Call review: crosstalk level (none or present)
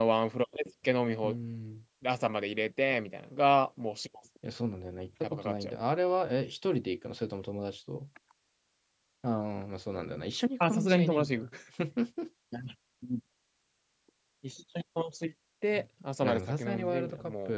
present